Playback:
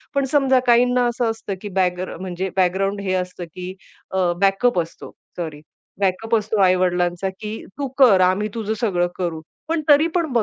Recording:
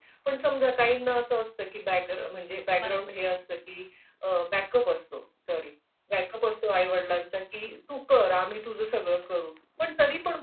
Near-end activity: present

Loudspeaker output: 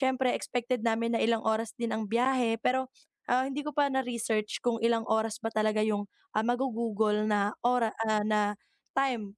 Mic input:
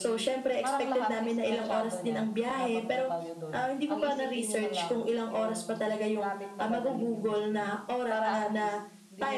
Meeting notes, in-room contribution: present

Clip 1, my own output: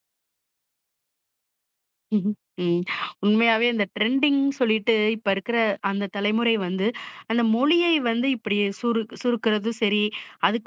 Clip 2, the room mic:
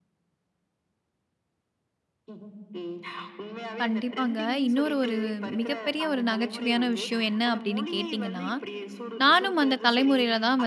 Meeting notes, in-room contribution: present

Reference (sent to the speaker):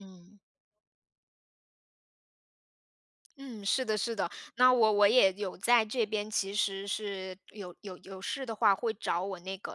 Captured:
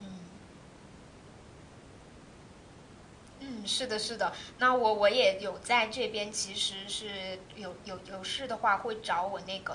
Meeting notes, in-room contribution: none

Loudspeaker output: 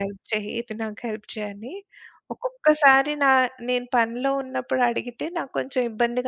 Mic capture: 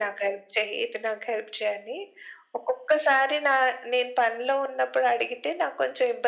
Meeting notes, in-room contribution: none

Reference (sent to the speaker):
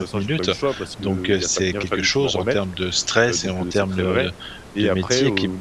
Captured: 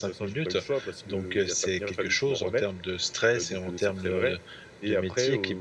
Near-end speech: none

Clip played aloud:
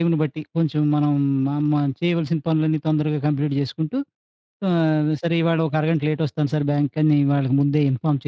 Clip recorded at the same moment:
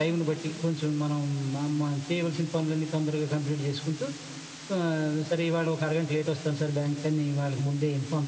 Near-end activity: none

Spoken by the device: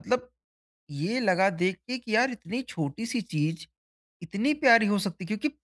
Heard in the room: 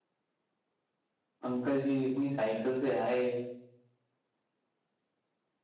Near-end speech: present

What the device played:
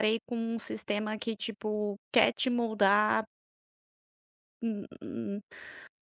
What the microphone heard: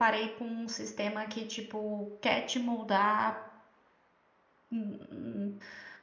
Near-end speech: none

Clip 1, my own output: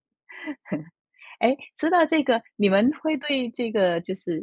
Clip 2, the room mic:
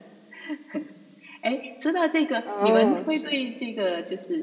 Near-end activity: present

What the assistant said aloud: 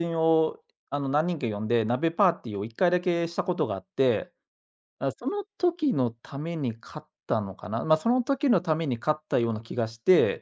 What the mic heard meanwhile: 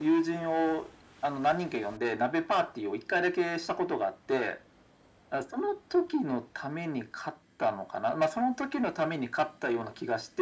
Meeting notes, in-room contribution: none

